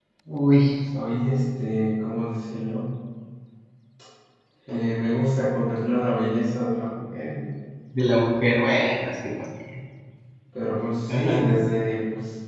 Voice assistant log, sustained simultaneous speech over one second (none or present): none